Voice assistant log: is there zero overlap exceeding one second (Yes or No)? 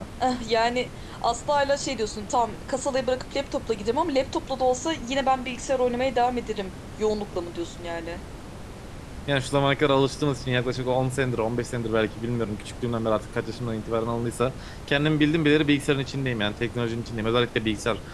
Yes